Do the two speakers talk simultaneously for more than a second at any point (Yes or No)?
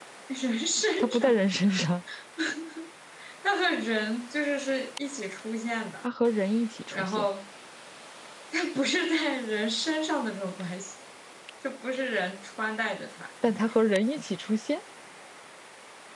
No